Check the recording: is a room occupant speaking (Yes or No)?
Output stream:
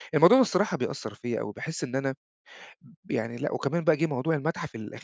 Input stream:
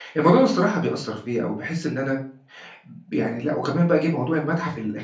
No